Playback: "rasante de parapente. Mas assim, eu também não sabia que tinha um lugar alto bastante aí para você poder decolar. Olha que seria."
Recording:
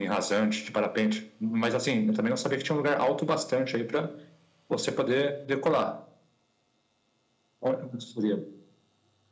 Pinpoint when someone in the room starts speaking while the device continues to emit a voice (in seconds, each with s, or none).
none